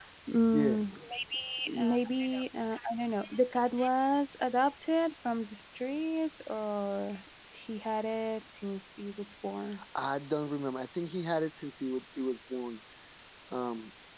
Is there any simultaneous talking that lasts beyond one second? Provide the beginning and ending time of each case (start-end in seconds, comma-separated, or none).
none